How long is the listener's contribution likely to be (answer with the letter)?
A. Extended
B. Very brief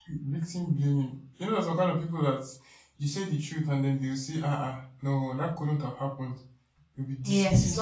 A